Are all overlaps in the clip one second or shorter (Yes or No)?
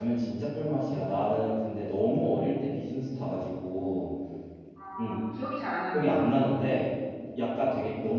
Yes